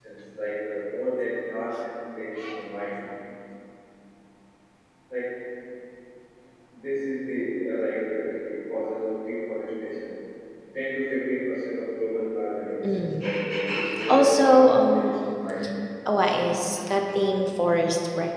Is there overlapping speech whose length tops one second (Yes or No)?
Yes